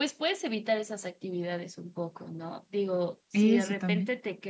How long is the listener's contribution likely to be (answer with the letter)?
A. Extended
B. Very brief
B